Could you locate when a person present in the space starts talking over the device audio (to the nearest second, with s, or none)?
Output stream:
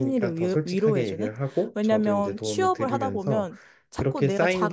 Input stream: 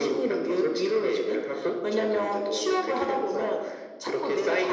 none